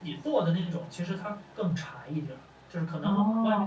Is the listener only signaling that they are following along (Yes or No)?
Yes